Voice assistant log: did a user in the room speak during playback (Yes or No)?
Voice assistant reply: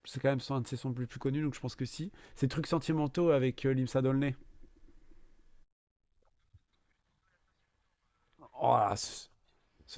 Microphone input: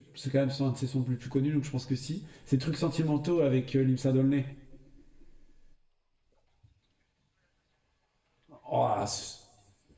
No